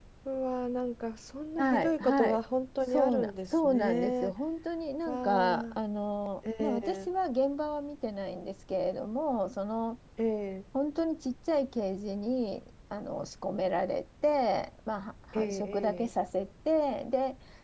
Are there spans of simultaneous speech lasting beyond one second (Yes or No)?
Yes